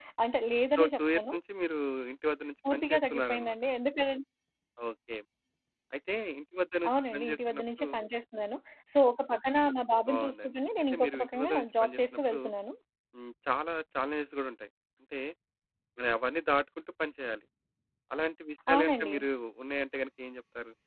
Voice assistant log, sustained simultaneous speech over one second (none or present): present